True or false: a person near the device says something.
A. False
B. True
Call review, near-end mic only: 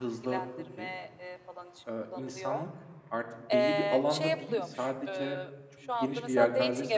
B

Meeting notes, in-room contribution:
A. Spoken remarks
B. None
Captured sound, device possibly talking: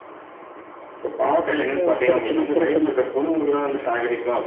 A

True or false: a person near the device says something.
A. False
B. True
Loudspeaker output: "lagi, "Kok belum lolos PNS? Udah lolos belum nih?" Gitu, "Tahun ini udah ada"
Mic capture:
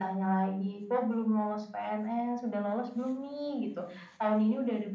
A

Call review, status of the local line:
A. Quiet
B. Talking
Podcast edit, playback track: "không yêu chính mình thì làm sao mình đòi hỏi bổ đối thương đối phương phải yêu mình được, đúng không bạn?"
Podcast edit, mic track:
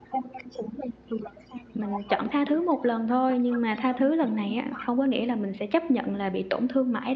B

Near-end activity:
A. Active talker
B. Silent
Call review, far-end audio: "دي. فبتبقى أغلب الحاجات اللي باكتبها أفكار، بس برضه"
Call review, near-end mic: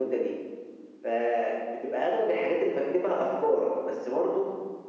B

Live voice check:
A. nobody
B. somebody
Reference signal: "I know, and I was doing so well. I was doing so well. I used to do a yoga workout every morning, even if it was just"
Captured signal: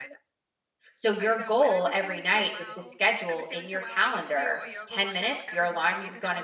B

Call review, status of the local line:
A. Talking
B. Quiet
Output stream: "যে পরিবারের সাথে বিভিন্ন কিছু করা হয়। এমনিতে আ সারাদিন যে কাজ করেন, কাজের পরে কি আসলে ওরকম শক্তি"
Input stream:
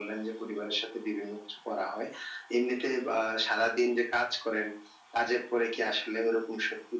B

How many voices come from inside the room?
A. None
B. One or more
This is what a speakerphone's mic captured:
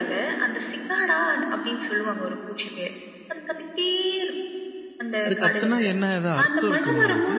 B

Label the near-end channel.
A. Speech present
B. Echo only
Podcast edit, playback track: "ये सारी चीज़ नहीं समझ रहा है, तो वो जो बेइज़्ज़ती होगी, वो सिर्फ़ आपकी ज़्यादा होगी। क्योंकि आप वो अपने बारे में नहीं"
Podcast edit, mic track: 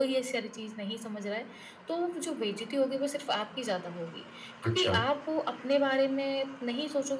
A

